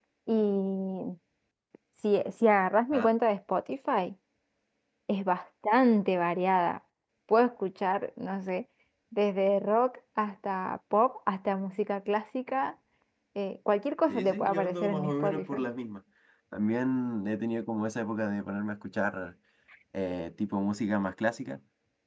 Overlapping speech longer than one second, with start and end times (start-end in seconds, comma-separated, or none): 14.1-15.6